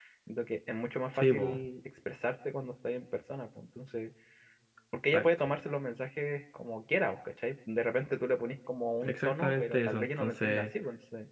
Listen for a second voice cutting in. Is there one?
Yes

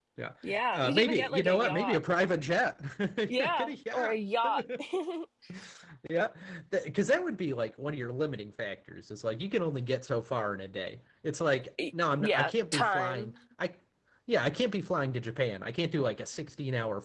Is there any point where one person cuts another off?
Yes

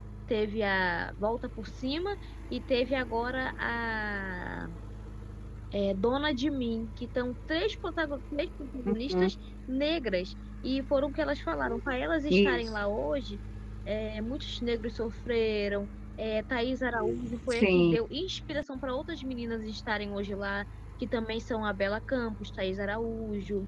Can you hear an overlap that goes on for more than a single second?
No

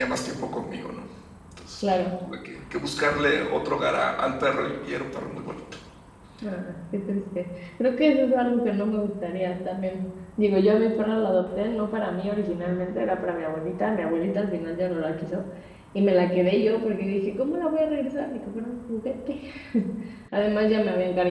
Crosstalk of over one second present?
No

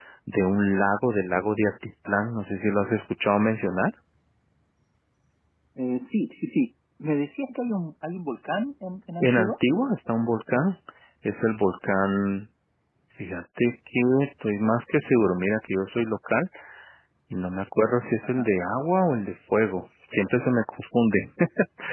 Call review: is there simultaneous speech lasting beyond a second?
No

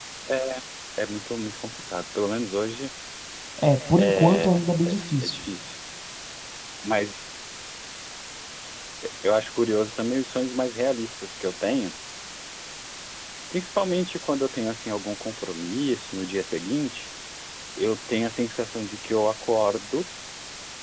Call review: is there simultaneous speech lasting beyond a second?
Yes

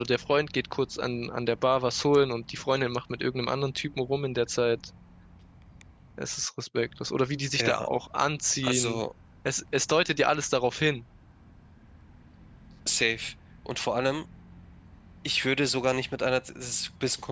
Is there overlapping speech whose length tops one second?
No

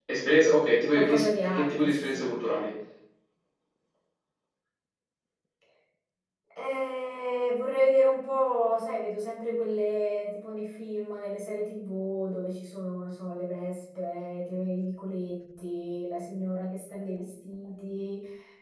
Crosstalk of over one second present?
Yes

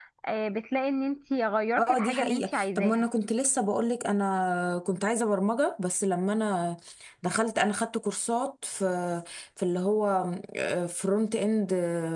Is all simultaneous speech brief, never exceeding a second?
No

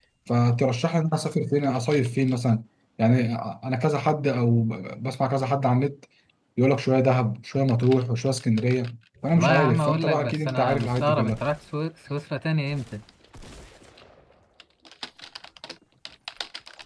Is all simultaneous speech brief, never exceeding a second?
No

